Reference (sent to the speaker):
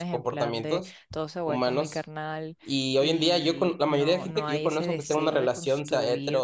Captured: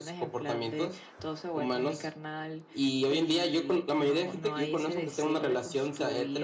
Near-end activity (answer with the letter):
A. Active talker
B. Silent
B